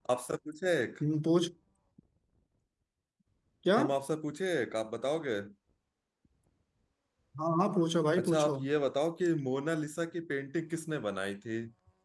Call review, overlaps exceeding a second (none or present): none